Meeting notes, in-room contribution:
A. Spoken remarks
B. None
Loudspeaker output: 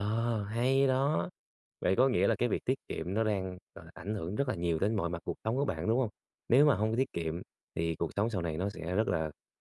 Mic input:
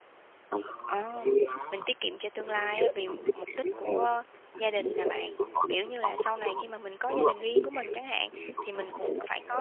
A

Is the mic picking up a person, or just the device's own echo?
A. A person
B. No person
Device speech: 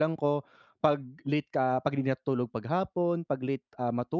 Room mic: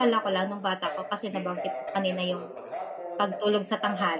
A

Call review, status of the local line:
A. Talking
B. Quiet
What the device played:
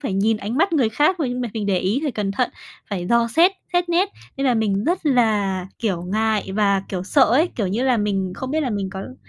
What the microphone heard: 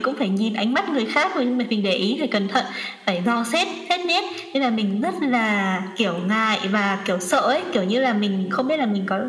B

